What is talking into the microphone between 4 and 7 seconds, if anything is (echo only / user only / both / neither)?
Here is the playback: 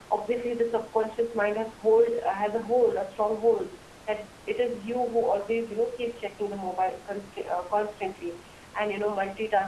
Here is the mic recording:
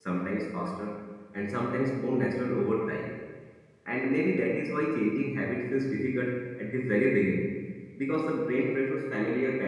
user only